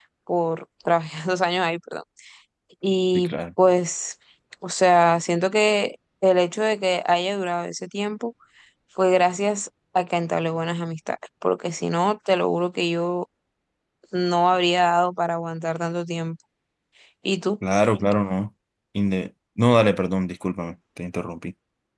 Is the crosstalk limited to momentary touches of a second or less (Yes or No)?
Yes